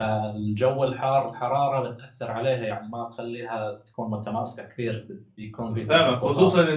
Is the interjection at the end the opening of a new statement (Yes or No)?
Yes